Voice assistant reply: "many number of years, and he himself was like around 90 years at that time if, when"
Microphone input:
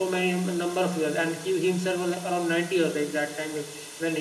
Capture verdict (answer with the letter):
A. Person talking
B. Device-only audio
B